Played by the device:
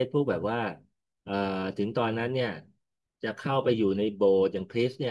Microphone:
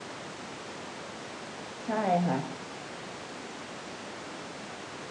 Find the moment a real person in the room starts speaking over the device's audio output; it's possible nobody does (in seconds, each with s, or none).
1.8 s